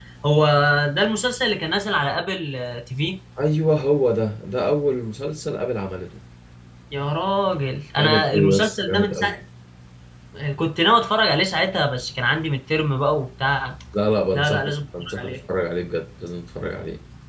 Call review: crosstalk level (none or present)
present